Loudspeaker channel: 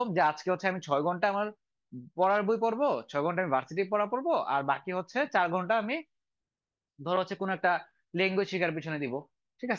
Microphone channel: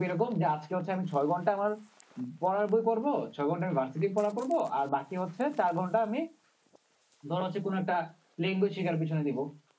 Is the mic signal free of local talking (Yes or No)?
Yes